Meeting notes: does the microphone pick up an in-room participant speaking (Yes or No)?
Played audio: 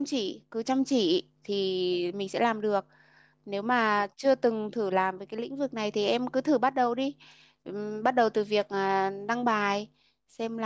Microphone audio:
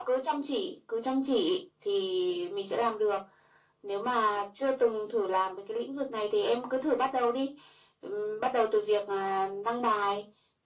No